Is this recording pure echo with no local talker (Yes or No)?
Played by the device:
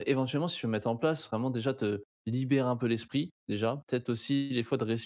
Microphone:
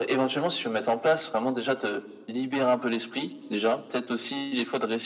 Yes